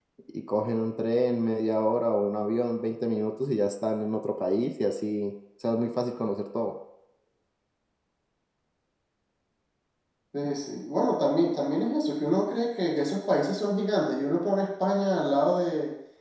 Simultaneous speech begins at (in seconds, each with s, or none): none